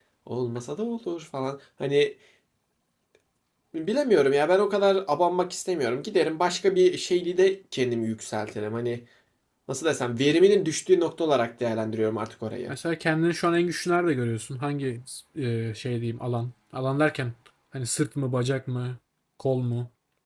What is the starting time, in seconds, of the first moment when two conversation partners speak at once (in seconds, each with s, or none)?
none